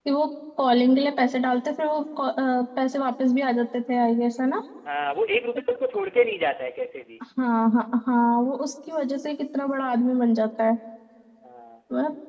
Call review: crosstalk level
none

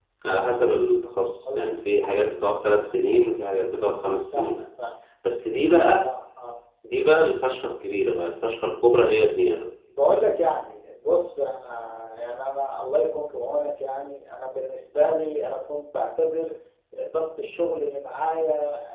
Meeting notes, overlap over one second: none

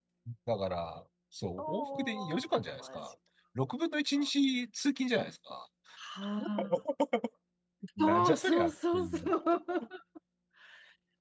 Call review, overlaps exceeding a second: present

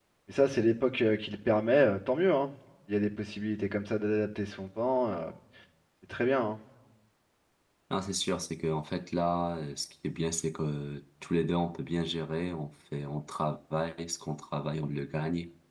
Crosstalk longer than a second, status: none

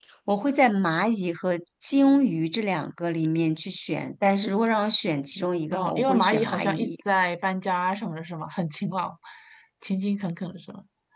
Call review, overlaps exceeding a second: present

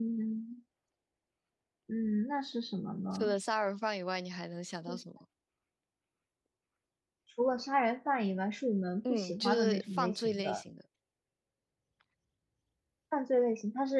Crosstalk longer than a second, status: present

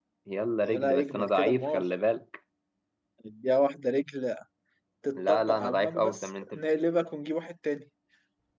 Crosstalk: present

